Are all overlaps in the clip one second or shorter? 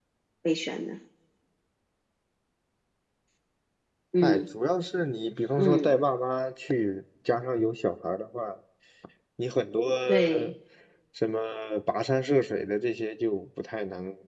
Yes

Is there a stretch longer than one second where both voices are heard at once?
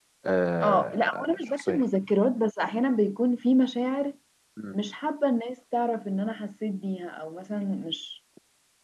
Yes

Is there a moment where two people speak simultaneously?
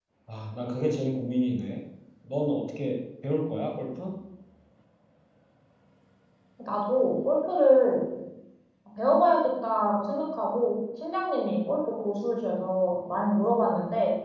No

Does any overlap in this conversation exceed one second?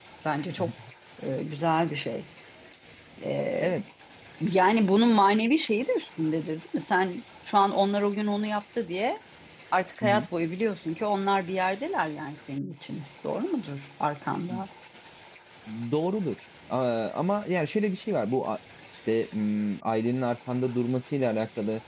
No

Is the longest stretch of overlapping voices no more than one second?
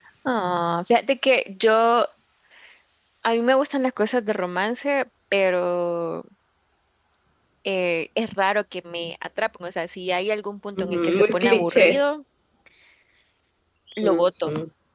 No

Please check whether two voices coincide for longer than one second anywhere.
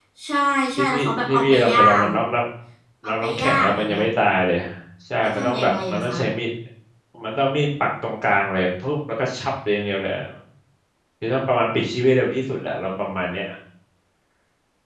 Yes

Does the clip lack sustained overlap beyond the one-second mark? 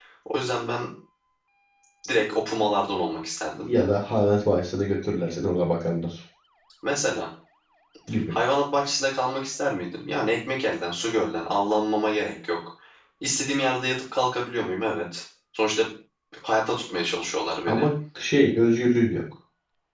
Yes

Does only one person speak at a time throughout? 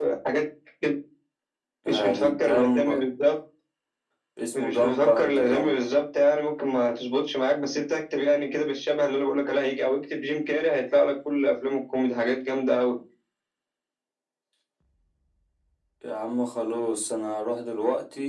No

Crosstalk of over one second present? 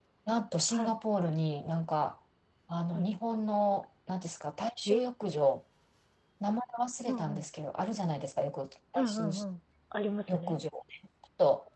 No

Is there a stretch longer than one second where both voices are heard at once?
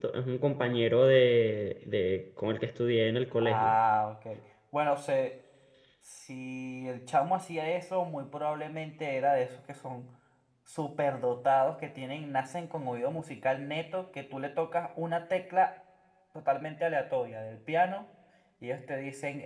No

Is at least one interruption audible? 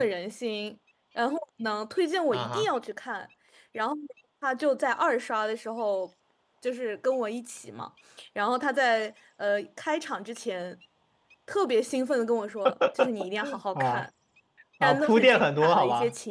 Yes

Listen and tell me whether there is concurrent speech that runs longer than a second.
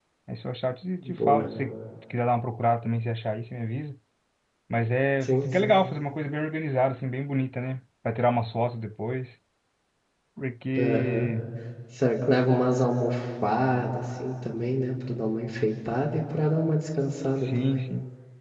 No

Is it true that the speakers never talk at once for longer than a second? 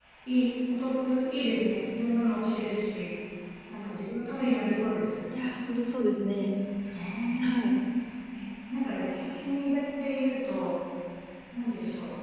Yes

